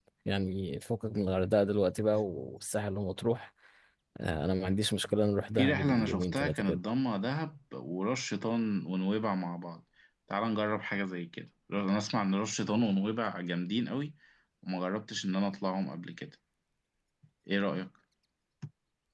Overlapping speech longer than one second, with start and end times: 5.6-6.8

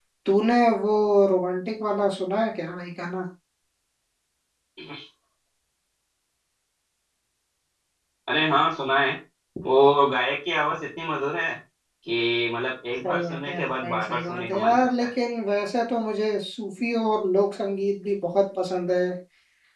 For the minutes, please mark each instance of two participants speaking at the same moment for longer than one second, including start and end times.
13.0-15.1

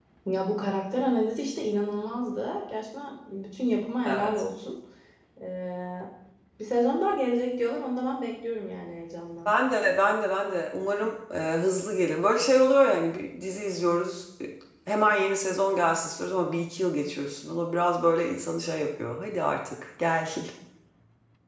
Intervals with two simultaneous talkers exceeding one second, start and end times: none

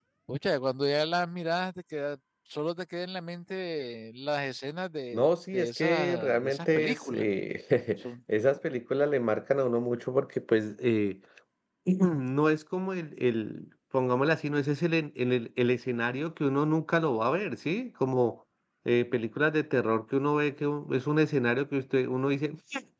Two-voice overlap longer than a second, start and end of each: 5.1-7.2

